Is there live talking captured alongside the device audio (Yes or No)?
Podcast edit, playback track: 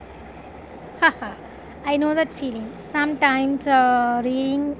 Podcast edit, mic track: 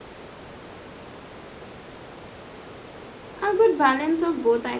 Yes